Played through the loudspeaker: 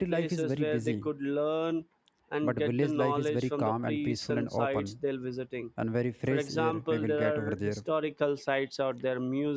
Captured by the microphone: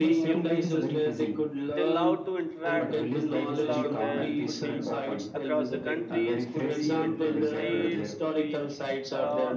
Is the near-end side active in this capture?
Yes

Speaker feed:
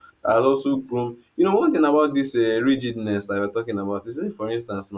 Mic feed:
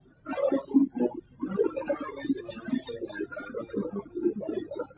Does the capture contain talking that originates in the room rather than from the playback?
No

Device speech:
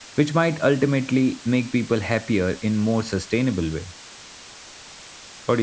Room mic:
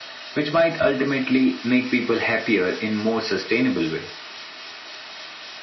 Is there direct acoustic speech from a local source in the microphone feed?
No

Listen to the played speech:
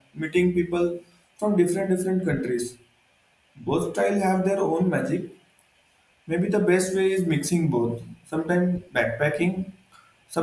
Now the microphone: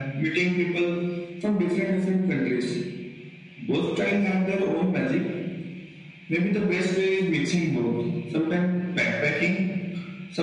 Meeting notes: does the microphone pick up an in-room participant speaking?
No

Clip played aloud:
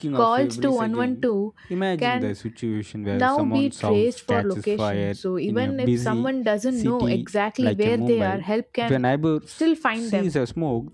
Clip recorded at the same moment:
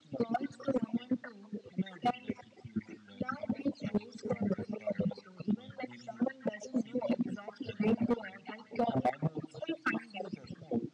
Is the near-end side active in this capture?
No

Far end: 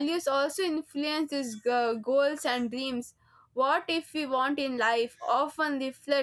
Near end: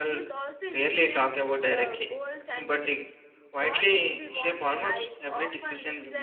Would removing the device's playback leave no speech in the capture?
No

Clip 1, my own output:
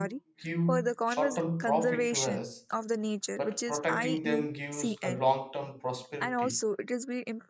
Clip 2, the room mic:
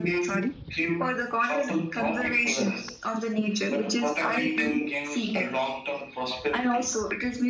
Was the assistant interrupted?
No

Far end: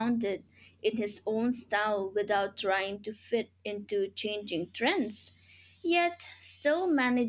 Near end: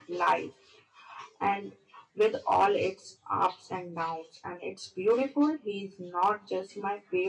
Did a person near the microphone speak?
Yes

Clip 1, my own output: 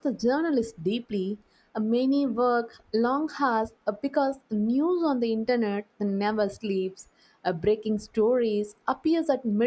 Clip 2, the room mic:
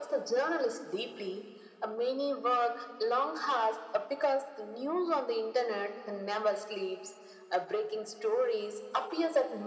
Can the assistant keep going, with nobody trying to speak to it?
Yes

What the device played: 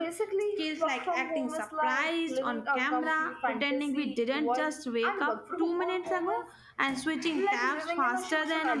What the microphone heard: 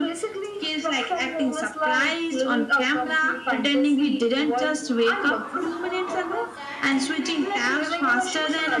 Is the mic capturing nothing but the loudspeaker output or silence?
No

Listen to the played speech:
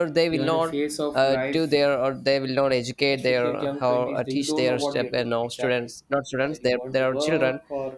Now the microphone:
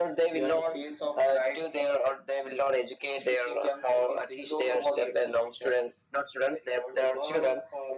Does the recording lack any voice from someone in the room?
Yes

